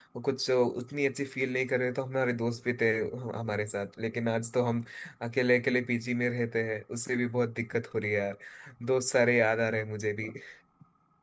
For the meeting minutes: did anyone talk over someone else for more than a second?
No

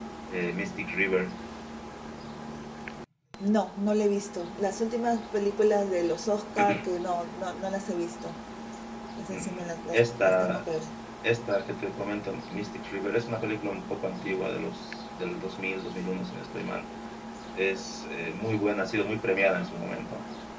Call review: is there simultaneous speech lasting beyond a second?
Yes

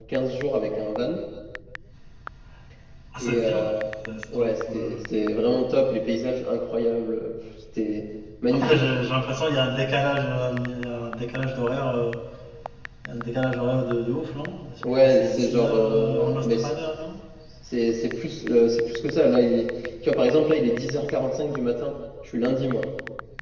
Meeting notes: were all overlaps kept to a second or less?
No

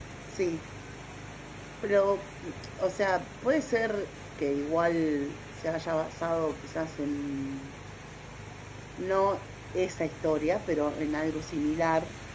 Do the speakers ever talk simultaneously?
No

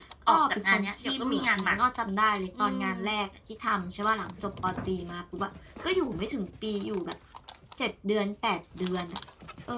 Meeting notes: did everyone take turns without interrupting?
No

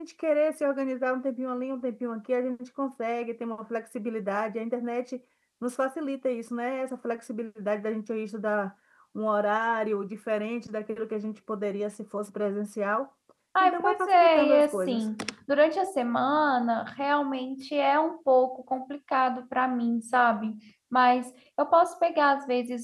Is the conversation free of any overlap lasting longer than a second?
No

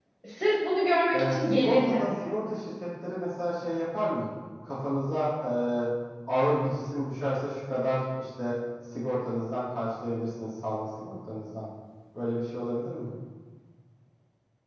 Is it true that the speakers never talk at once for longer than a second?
No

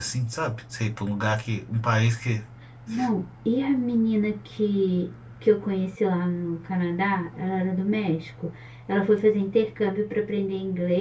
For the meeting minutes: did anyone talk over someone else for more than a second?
No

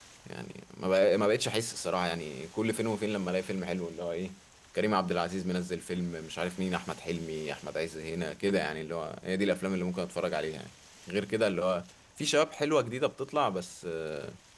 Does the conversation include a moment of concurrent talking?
No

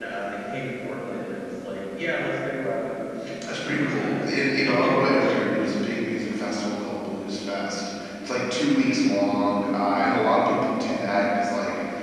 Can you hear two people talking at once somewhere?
Yes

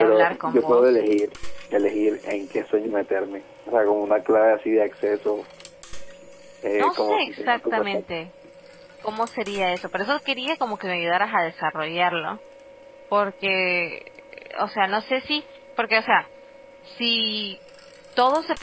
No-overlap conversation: No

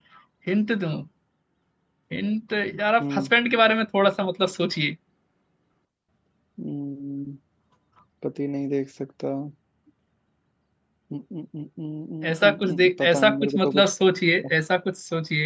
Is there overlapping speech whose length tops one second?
Yes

